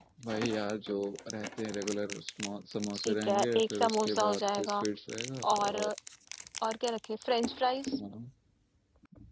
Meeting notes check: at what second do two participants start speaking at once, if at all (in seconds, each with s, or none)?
3.0 s